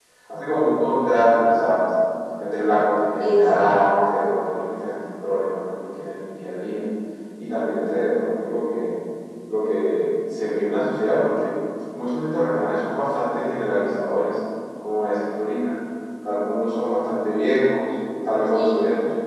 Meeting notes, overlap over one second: present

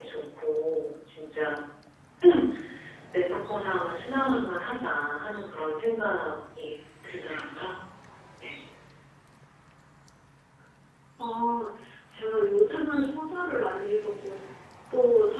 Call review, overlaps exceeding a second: none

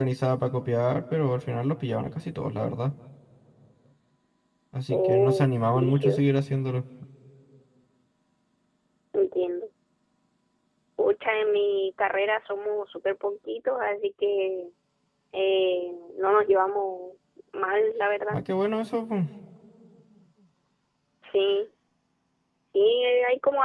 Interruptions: present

